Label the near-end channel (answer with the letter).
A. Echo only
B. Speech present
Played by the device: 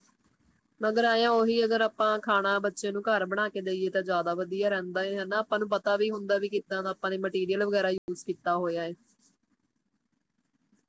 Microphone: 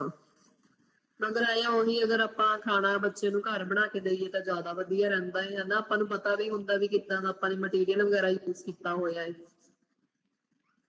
A